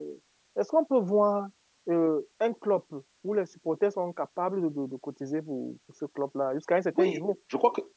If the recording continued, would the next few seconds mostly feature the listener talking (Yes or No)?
Yes